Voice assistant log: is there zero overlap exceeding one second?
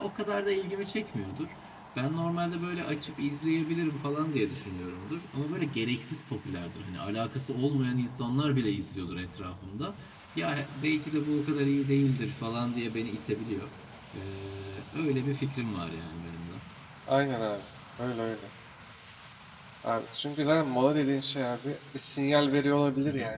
Yes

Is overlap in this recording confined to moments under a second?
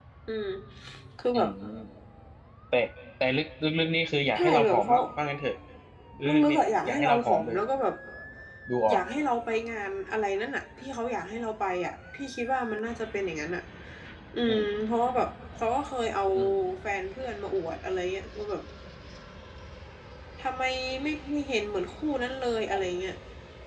No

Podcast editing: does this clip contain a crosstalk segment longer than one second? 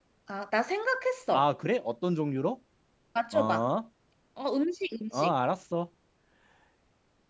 No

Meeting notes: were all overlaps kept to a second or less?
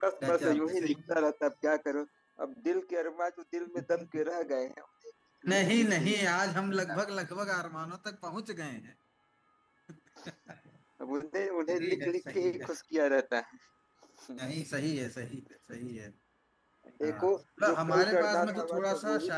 No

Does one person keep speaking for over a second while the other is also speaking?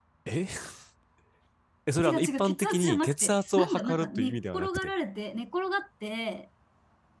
Yes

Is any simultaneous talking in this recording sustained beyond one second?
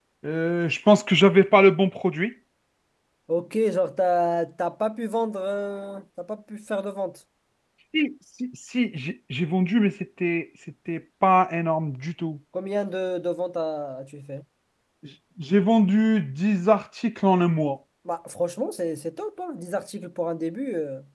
No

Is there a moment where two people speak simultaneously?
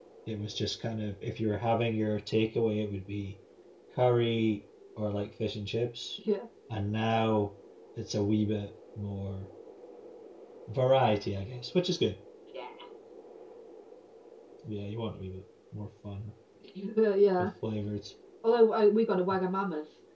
No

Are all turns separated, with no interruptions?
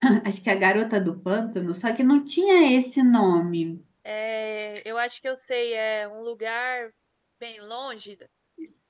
Yes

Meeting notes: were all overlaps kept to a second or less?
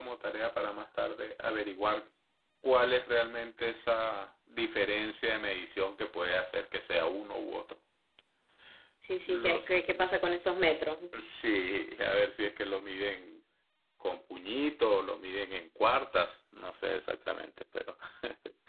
Yes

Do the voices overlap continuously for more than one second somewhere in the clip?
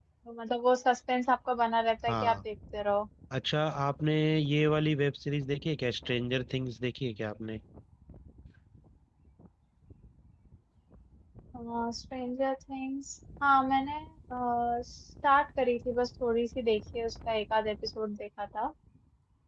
No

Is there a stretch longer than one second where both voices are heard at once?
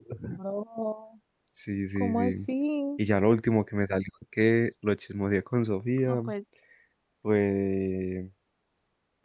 No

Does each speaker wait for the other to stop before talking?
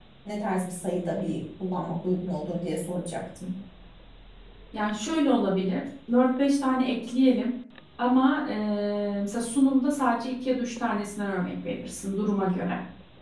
Yes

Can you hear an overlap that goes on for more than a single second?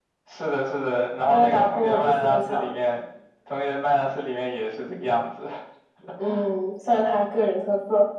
Yes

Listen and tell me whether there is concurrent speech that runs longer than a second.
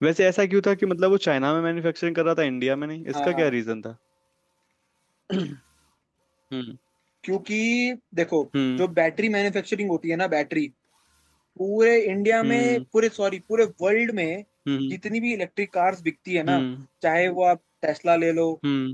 No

